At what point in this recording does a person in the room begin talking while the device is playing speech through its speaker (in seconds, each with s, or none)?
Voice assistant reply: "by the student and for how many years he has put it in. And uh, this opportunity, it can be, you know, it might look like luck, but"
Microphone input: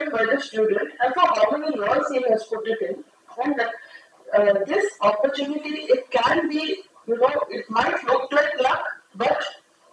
none